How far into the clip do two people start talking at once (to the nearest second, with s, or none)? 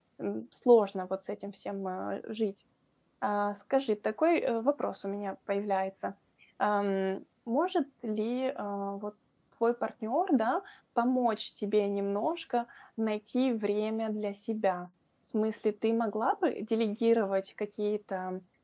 none